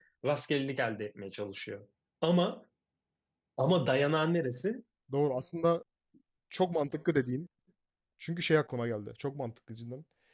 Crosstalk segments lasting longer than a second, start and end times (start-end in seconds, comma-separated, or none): none